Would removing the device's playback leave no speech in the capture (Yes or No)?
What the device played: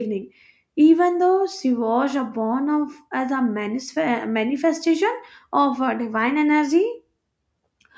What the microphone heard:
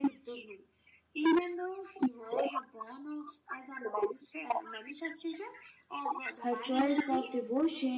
No